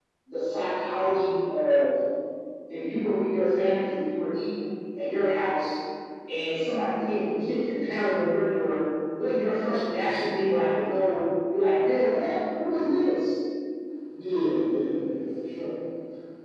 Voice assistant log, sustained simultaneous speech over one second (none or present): none